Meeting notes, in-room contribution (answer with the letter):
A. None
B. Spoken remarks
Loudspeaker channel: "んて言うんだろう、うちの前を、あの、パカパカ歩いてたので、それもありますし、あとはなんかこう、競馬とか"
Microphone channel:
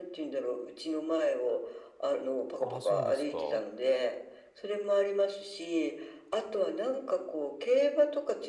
B